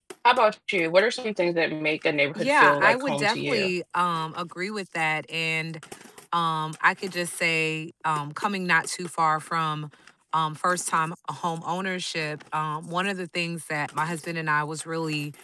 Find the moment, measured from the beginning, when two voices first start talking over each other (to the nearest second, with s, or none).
2 s